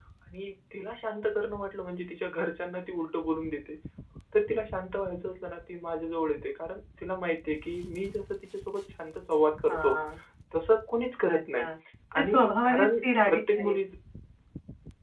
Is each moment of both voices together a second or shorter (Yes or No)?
No